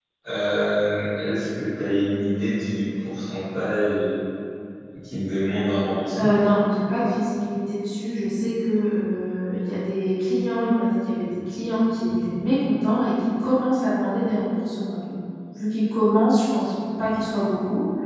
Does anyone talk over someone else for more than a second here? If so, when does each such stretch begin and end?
none

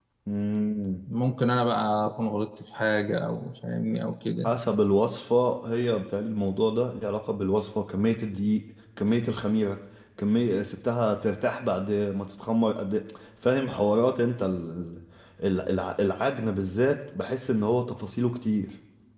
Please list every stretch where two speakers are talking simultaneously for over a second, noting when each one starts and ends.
none

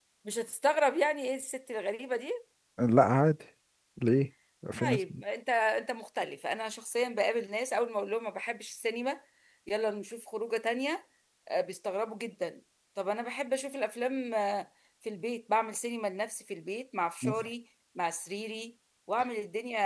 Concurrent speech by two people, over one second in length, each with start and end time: none

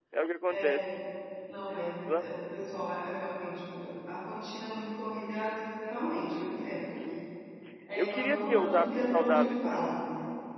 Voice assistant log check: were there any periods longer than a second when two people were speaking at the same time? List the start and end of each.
8.0-9.8

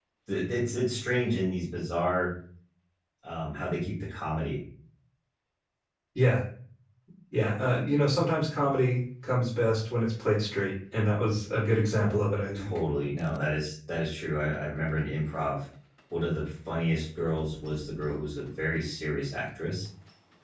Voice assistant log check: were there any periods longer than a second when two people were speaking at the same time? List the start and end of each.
none

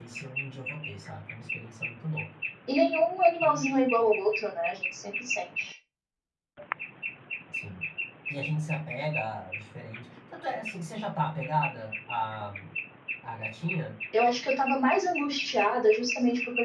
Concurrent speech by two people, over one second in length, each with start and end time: none

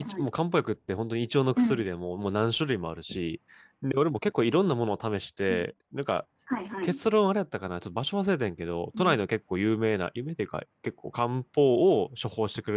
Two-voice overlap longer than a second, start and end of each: none

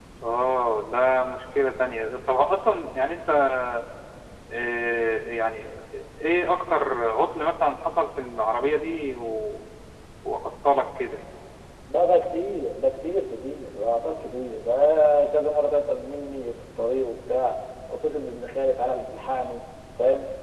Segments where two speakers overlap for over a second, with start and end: none

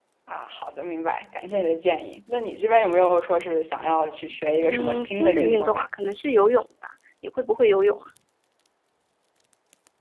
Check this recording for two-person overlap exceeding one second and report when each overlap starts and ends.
4.6-5.9

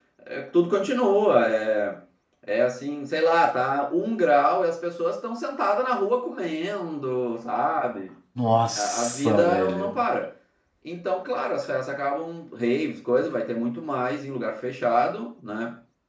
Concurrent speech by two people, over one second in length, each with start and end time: 8.8-10.0

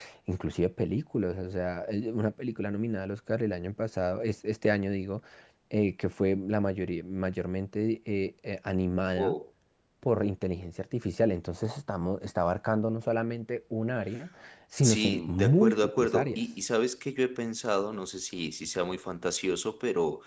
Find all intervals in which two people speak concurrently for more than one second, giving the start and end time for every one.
14.8-16.4

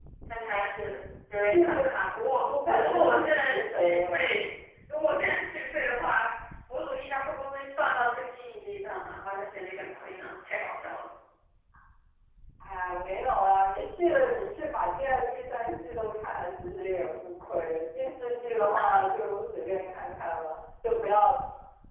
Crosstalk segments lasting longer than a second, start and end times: 2.5-4.3

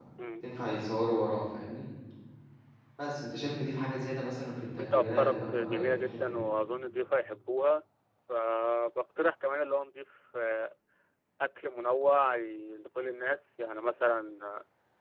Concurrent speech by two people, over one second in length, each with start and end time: 4.8-6.4

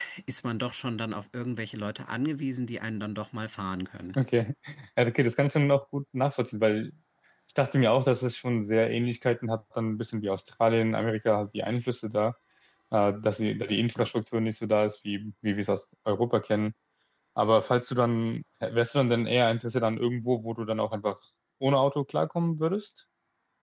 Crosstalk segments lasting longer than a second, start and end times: none

